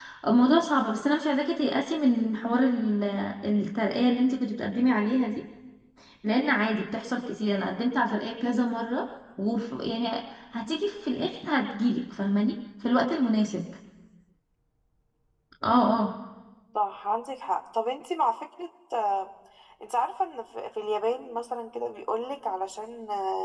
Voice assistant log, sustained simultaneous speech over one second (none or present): none